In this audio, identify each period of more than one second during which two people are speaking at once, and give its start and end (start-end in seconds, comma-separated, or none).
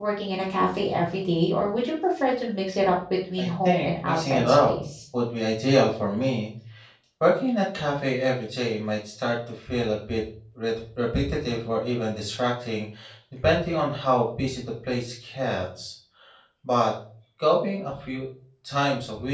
3.4-4.7